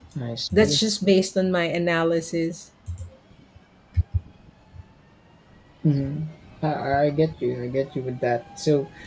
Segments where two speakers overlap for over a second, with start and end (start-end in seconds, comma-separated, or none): none